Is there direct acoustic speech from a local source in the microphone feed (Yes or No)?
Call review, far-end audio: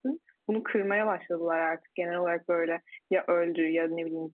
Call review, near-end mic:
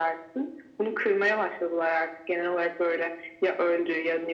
No